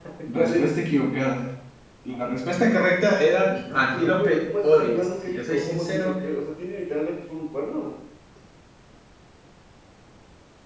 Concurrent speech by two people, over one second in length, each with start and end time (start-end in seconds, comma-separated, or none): 3.7-6.2